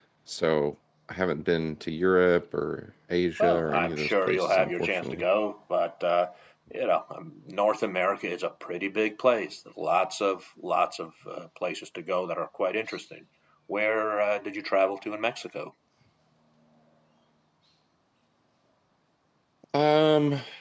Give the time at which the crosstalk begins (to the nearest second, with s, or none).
3 s